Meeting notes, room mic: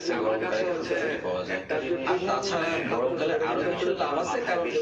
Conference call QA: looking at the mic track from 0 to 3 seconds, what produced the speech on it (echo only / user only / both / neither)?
both